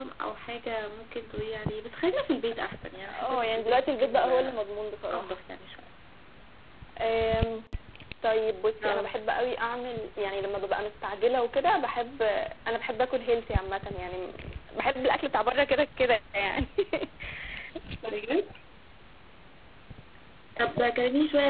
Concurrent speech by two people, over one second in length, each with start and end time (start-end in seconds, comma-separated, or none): 3.0-4.6